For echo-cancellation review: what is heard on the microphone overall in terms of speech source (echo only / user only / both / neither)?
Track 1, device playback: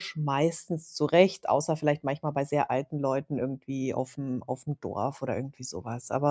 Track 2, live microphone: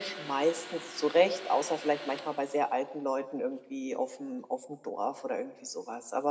echo only